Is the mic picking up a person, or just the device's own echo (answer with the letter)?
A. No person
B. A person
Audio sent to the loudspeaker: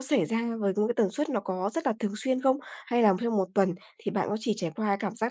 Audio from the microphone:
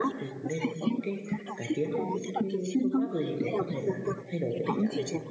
B